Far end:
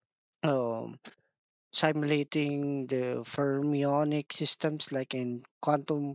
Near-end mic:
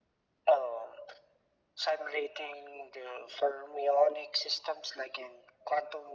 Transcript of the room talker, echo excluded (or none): none